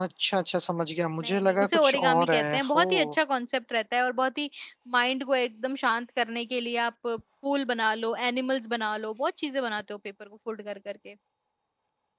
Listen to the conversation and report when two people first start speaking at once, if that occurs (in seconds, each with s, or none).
1.2 s